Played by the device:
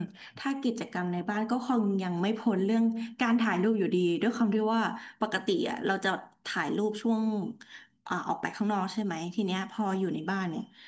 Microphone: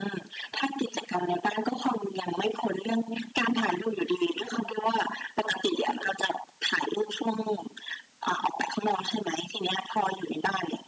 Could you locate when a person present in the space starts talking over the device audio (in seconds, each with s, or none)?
none